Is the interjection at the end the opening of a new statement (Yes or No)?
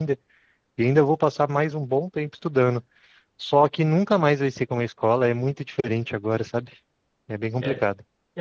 Yes